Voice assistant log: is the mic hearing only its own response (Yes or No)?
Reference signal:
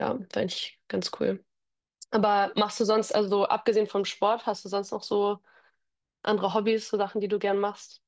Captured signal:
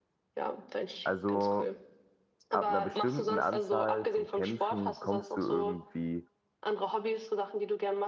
No